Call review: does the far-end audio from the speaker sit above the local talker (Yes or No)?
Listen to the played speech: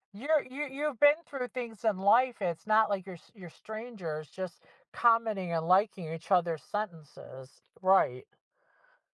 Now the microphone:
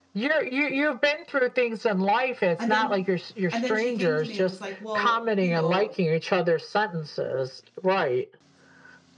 Yes